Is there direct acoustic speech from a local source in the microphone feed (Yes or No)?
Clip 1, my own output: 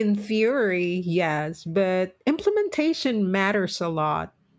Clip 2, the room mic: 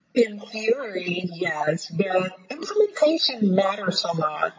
No